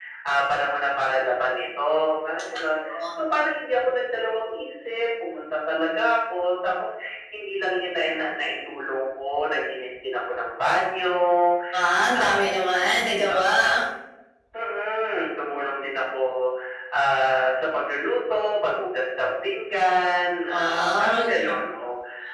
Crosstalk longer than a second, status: present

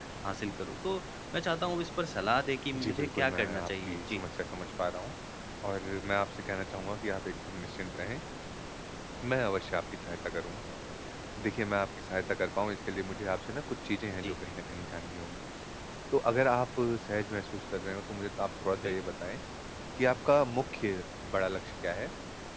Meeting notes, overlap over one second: present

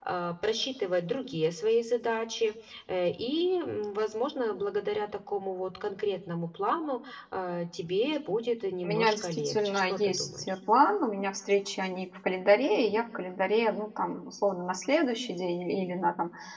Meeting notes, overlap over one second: present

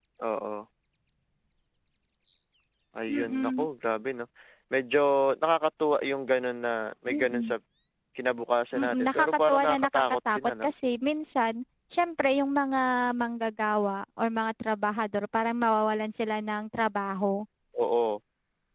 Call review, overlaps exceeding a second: present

